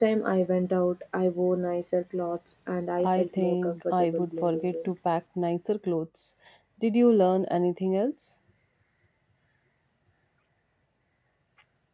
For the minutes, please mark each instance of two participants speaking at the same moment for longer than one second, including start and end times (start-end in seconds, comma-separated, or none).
3.0-4.9